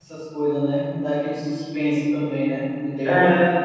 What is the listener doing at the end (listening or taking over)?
taking over